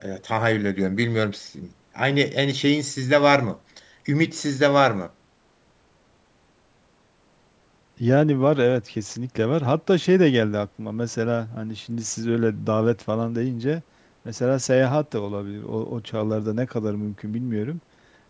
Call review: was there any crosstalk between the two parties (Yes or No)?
No